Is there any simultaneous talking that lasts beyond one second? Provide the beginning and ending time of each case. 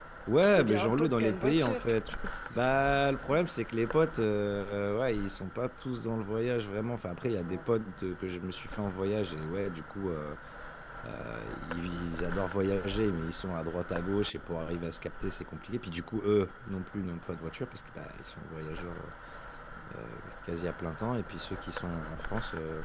0.6-1.9

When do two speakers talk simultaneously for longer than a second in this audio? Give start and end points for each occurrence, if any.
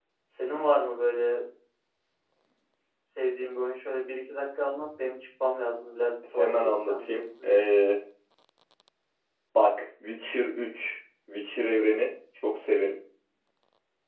6.3-7.6

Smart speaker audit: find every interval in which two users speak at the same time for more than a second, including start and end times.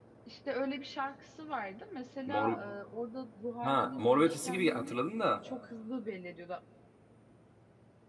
3.6-5.0

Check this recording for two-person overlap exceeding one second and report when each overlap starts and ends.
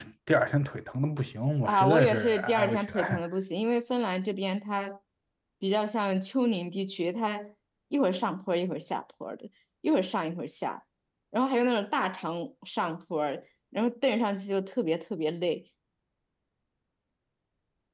1.6-3.2

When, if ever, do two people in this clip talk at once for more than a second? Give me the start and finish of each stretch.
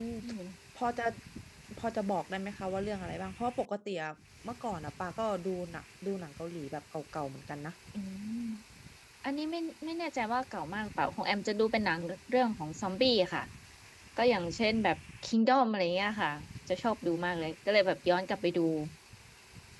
none

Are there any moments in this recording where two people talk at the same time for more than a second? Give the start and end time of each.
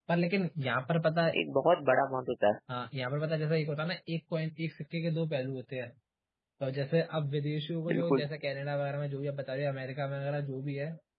none

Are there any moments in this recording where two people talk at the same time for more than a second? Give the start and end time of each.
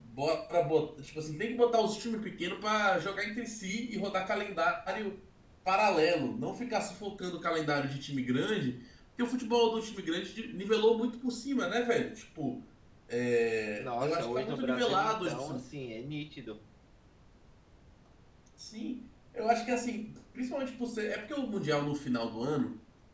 13.8-15.6

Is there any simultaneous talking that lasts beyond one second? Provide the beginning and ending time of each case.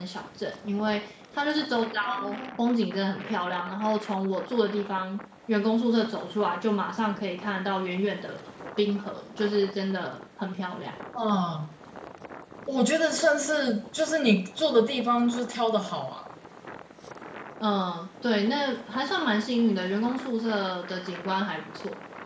none

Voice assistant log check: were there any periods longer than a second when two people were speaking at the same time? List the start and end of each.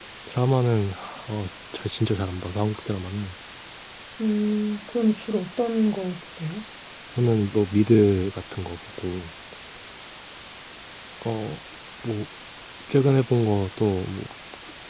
none

